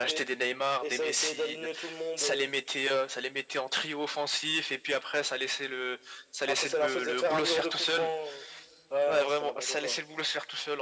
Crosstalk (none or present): present